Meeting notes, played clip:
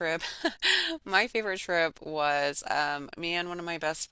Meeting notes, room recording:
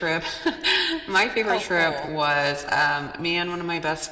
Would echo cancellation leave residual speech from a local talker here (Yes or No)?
Yes